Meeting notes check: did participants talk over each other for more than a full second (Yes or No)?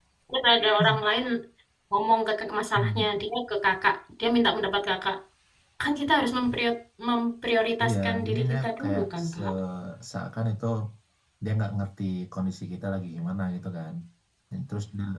Yes